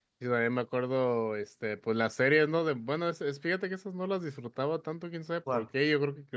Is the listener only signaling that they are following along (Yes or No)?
Yes